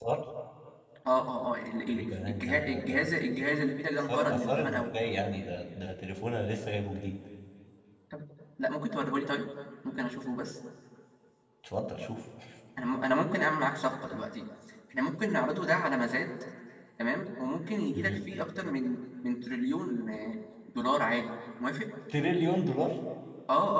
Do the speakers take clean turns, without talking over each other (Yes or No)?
No